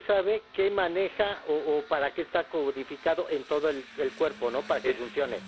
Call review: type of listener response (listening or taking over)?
taking over